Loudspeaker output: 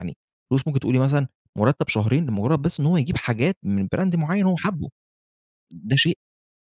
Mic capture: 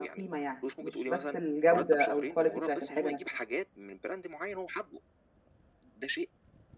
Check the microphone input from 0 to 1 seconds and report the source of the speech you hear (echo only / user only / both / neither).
both